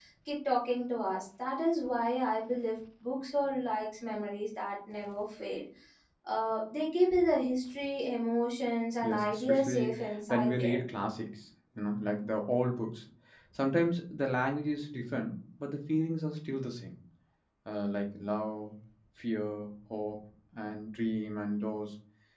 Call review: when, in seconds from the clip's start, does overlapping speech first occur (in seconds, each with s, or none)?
9.0 s